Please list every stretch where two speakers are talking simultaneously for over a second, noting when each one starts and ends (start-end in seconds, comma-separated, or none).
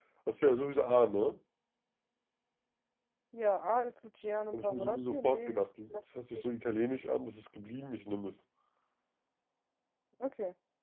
4.5-6.2